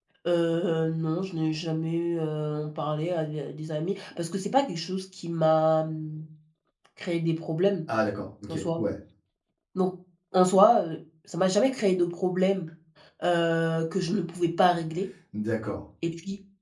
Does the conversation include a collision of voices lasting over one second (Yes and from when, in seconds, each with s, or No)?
No